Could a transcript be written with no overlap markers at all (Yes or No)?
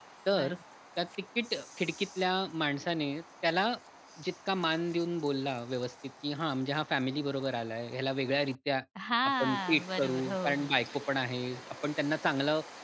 No